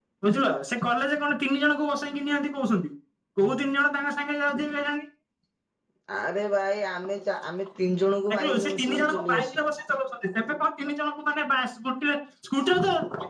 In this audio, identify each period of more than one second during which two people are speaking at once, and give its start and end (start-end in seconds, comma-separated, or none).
8.3-9.6